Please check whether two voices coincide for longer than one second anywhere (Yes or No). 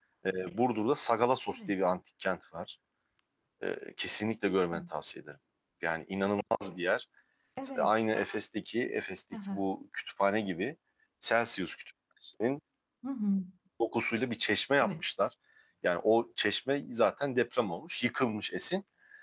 No